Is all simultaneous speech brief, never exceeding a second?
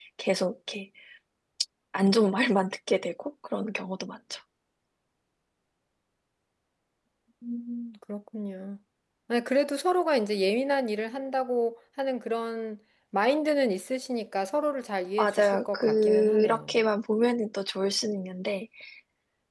No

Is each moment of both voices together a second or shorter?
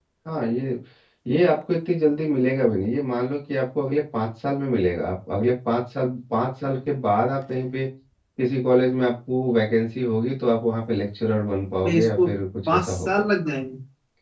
Yes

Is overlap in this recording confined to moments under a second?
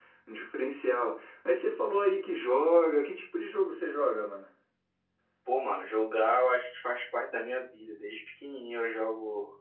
Yes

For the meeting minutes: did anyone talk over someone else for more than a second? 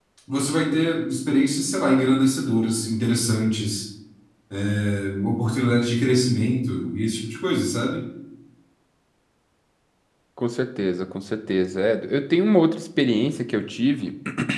No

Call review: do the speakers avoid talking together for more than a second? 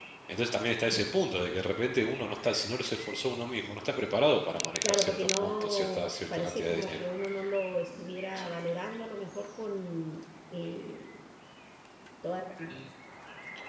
No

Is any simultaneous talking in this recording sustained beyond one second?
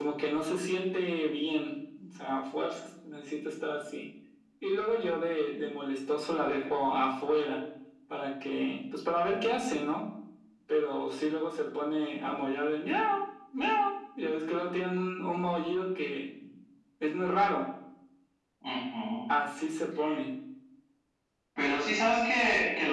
No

